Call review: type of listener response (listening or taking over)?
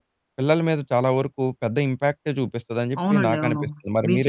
taking over